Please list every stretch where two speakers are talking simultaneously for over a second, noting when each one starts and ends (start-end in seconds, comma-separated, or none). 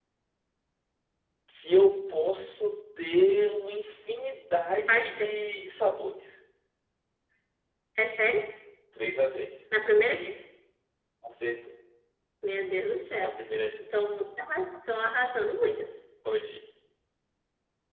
none